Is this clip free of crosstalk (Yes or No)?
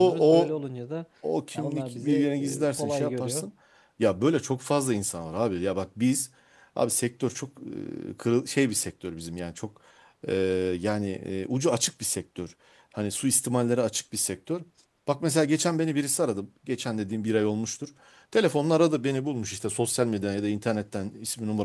No